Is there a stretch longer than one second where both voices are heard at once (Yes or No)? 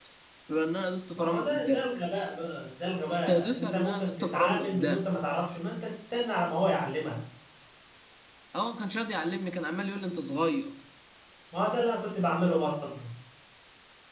Yes